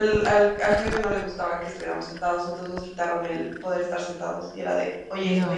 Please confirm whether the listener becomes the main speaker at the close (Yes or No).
No